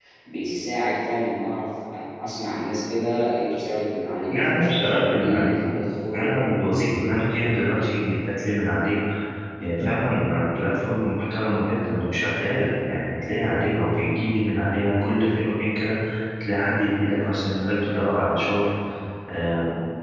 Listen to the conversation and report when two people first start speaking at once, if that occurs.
4.3 s

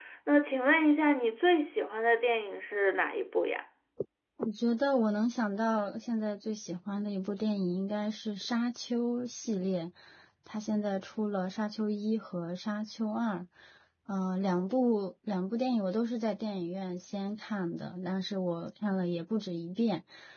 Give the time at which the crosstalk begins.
none

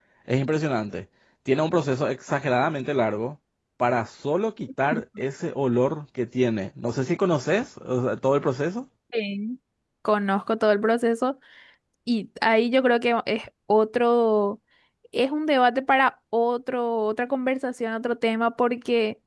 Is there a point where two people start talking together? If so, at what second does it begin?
none

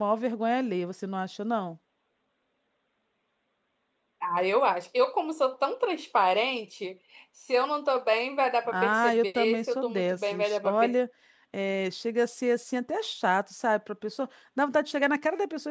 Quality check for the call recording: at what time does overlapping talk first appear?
8.7 s

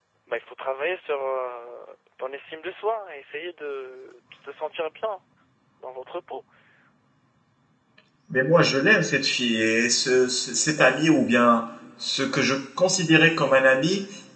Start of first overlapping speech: none

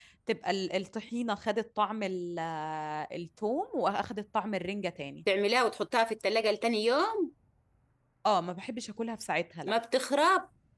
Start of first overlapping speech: none

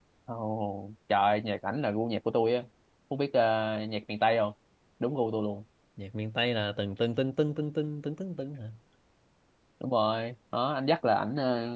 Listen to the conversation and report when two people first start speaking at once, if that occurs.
none

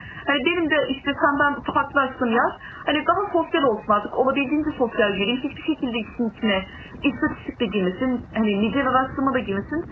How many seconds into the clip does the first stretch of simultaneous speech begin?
none

